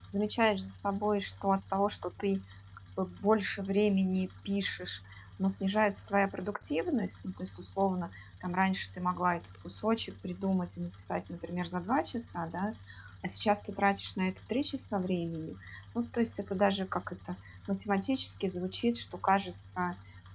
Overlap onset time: none

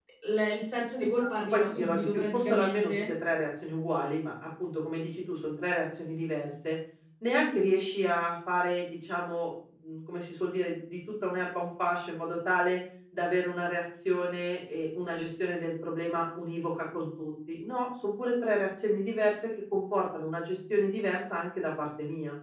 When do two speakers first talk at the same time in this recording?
1.2 s

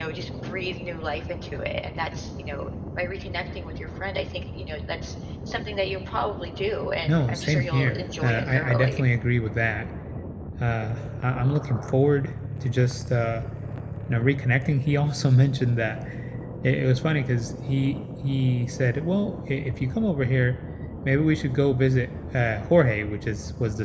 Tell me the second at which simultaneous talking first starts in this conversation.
7.1 s

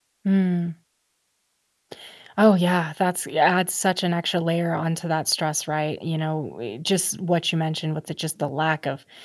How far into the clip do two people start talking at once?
none

